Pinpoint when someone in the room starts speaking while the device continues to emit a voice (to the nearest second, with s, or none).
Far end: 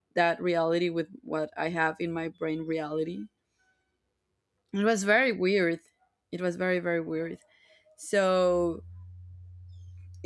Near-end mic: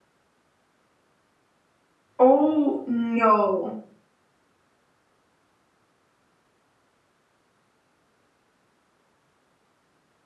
2 s